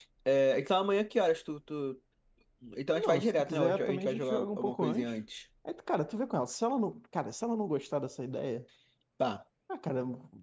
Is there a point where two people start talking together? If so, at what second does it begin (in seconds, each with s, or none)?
2.9 s